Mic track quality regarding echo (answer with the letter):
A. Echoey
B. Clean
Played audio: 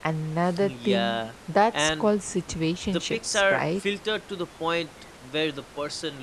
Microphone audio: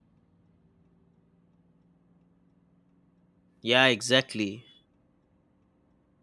B